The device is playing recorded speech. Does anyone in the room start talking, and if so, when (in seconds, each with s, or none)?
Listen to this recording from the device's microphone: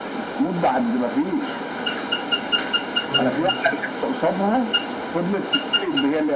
3.1 s